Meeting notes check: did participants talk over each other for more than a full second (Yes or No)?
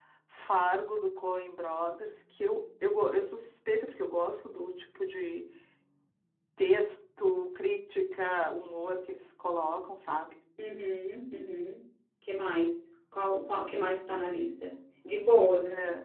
No